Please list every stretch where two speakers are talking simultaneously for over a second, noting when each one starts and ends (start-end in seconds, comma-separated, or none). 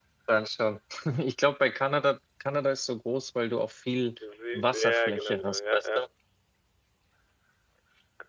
4.6-6.0